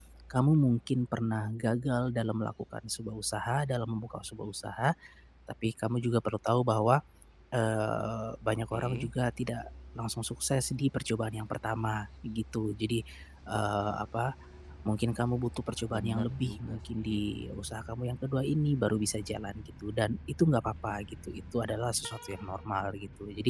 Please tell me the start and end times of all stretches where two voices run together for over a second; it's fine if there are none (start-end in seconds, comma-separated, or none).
15.9-17.2